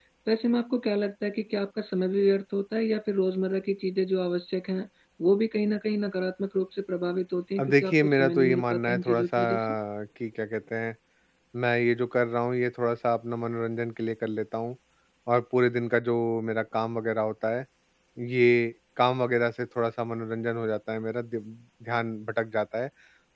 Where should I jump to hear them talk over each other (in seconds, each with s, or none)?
7.6 s